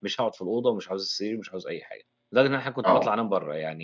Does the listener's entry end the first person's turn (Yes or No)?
No